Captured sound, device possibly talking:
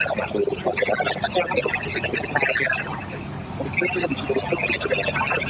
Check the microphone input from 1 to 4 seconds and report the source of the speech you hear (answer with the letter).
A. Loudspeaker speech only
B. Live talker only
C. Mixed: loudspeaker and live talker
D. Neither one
A